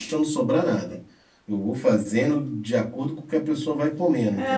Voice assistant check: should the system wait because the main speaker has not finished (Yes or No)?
No